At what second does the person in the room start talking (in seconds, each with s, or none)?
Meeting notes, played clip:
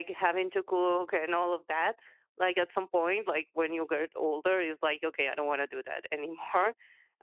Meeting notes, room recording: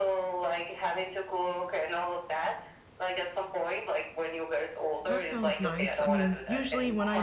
5.0 s